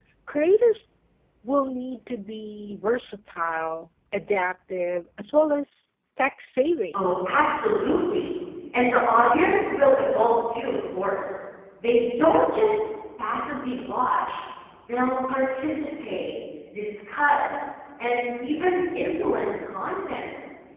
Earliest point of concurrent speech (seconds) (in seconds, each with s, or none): none